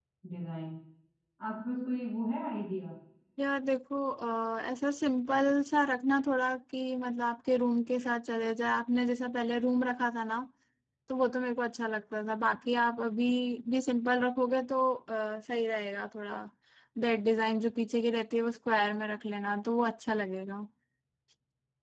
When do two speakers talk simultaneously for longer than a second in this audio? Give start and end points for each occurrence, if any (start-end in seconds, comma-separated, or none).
none